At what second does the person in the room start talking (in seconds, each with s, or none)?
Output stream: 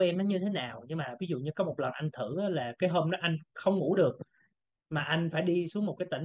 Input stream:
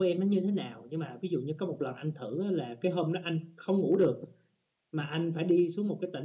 none